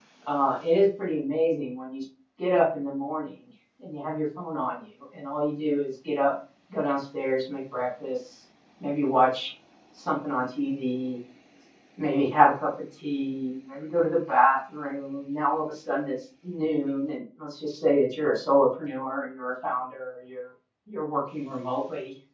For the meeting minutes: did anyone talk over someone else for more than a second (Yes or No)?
No